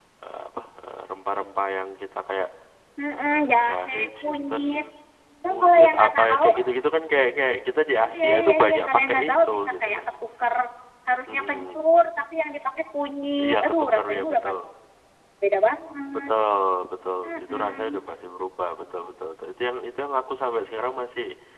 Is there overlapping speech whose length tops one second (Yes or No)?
Yes